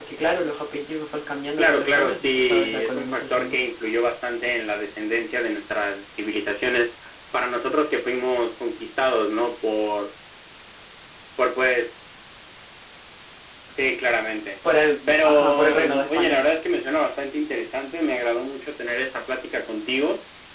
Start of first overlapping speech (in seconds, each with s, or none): 1.6 s